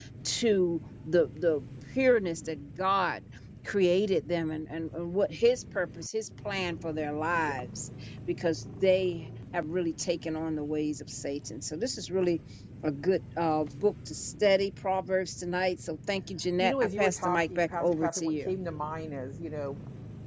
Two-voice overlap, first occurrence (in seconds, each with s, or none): 16.6 s